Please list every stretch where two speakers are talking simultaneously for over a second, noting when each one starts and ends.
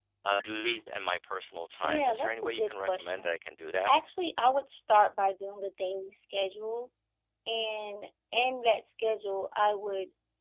1.8-3.3

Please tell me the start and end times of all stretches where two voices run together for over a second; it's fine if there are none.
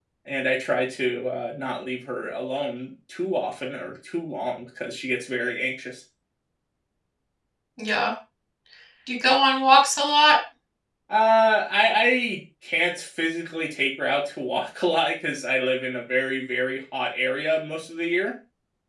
none

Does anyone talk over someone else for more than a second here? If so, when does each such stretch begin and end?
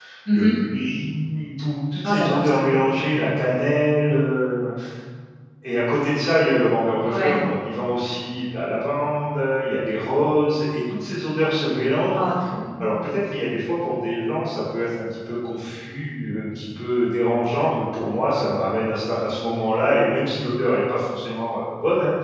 none

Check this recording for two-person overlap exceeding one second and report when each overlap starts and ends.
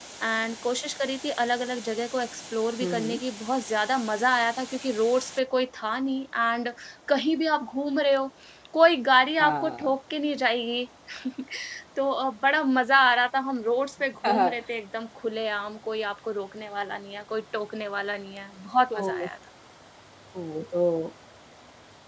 none

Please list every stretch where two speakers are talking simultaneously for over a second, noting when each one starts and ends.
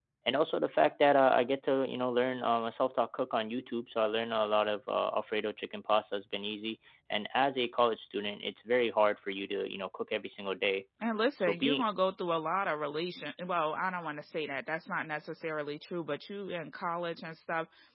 none

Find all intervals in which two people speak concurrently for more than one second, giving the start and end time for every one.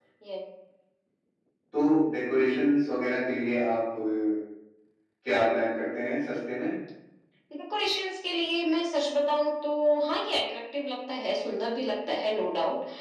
none

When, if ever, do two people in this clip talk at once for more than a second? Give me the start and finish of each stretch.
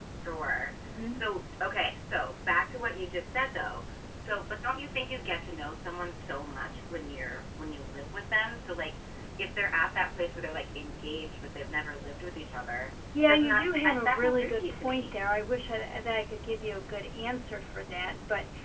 13.3-15.1

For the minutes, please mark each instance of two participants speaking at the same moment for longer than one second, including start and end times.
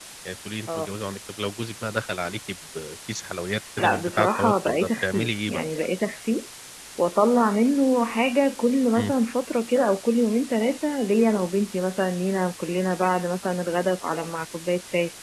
3.8-5.7

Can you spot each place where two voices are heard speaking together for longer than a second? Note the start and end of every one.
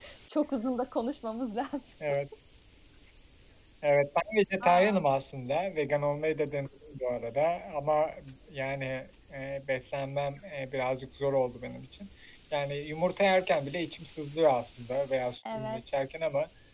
none

